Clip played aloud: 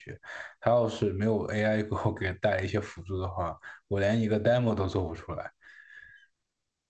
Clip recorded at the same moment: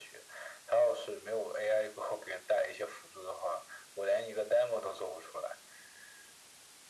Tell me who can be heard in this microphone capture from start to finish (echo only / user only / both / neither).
echo only